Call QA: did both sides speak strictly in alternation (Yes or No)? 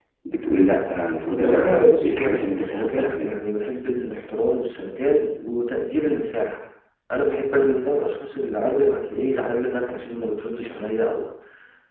No